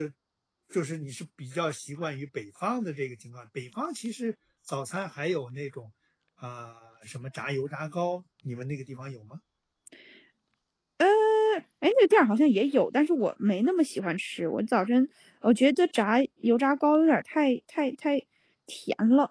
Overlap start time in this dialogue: none

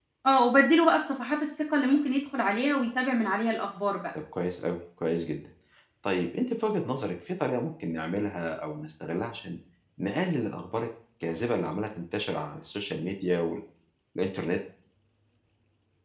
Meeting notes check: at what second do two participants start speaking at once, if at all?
none

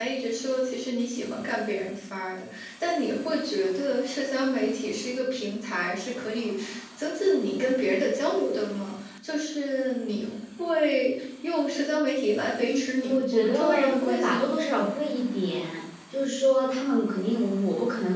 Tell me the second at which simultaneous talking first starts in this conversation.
12.5 s

